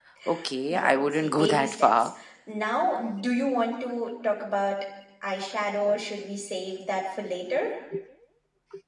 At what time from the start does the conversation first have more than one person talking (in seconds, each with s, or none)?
0.7 s